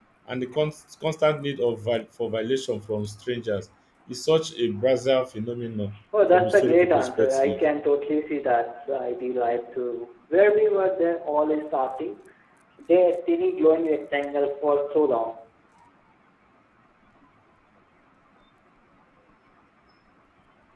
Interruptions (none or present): present